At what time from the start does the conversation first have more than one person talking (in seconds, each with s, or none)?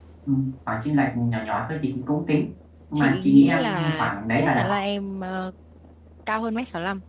3.0 s